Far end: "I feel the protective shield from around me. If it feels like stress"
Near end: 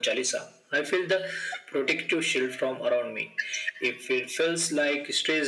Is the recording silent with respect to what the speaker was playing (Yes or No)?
No